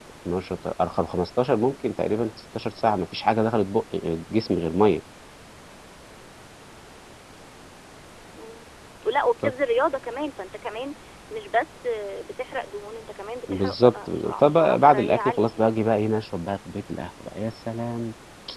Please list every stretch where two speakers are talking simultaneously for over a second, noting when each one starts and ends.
13.5-15.7

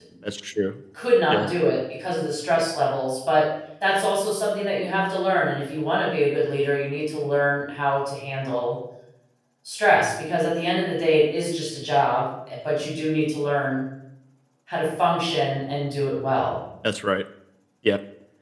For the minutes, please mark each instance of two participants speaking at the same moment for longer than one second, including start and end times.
none

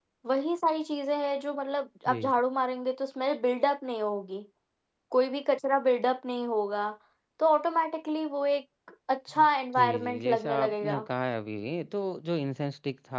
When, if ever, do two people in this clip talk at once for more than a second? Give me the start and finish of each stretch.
9.8-11.0

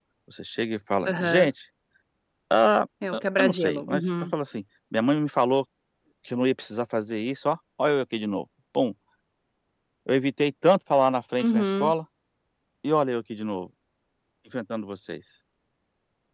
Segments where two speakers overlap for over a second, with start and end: 3.1-4.3

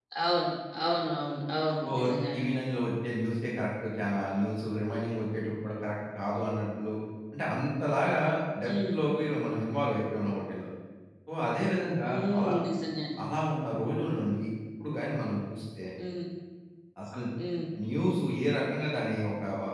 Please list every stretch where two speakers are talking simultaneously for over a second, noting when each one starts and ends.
none

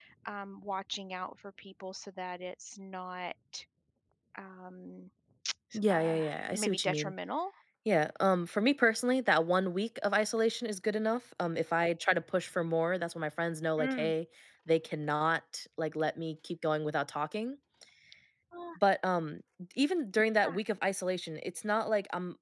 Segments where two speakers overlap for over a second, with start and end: 5.9-7.1

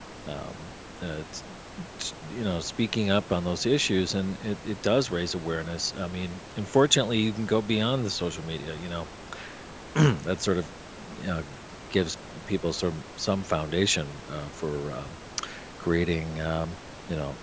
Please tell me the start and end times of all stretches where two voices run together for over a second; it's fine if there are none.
none

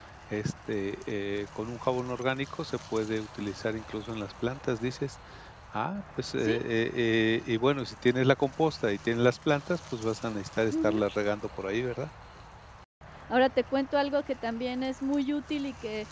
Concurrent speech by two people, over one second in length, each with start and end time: none

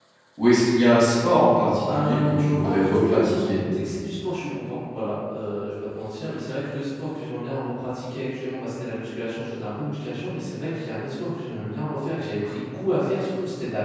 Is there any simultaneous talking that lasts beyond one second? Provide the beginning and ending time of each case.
1.9-3.6

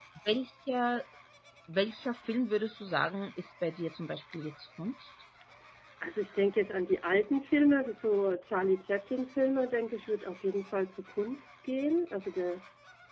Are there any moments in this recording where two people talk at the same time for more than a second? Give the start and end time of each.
none

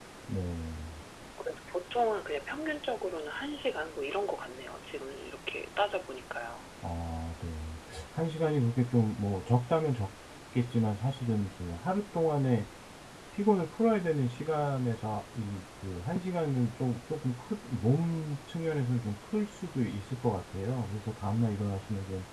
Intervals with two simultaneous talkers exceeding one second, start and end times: none

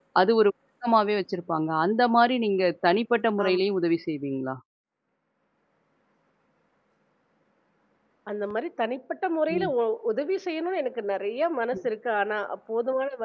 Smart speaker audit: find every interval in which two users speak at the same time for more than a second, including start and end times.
none

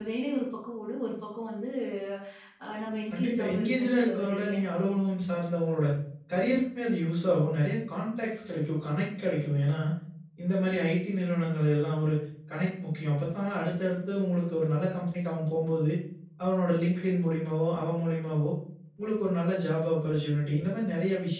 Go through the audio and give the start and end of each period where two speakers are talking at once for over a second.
3.1-4.5

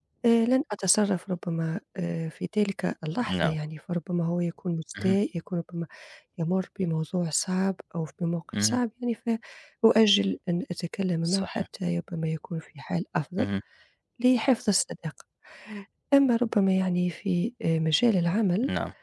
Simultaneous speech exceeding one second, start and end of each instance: none

